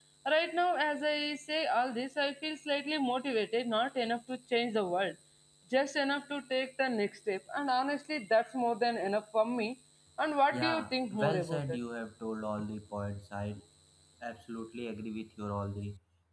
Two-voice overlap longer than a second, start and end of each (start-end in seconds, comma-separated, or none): 10.5-11.8